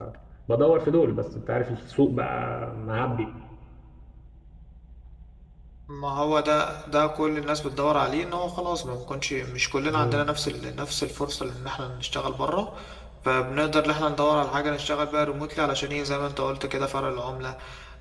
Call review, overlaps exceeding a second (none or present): none